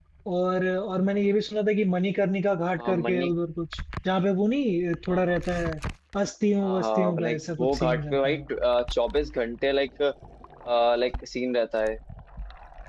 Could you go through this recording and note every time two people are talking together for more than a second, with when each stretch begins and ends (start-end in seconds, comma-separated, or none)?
6.6-8.4